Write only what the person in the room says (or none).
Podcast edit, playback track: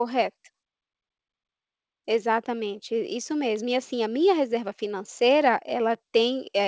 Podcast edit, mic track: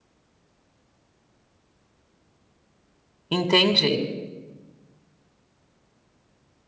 Entendi.